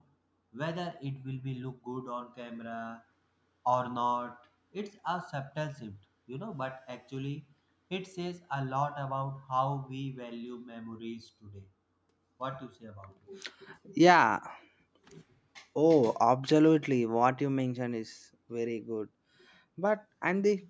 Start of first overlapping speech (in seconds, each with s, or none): none